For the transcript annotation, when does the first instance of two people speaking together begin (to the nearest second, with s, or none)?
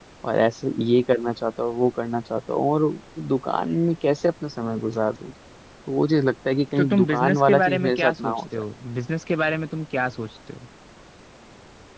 7 s